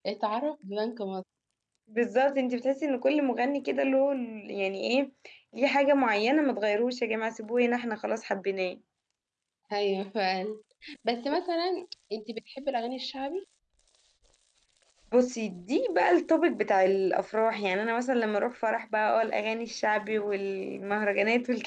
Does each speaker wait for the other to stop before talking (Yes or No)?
Yes